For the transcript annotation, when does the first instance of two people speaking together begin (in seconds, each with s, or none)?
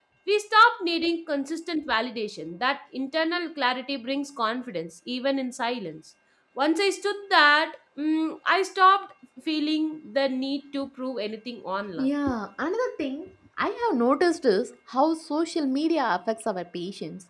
none